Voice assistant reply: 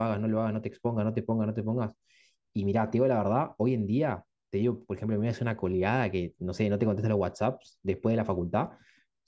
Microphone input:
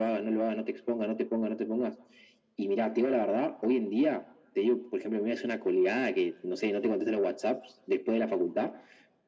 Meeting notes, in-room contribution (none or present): none